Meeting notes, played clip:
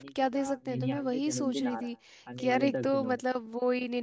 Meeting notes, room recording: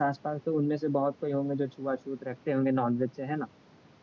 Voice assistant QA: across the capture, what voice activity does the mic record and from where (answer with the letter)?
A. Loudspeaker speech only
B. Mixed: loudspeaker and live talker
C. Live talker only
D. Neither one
C